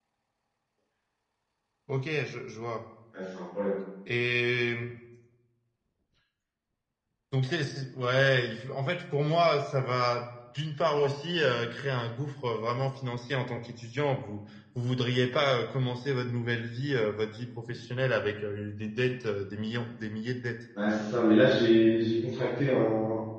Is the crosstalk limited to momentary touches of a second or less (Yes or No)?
Yes